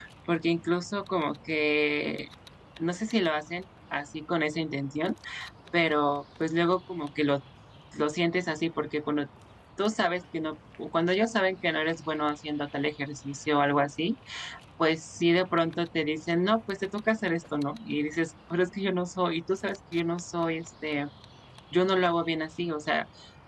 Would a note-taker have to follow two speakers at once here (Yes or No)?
No